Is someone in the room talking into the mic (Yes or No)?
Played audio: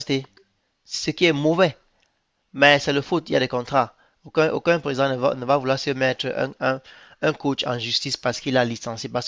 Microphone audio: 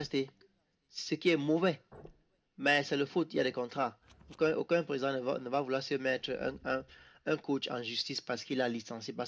No